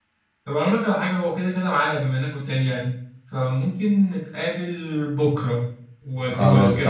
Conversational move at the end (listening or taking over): taking over